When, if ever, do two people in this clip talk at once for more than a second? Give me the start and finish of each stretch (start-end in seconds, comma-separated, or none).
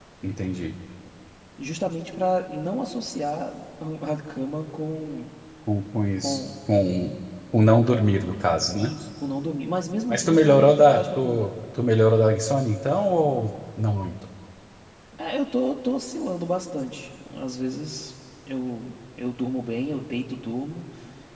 10.1-11.5